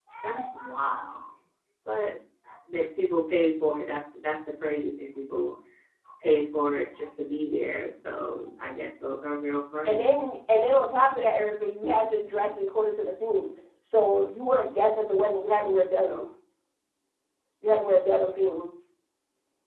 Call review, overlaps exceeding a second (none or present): none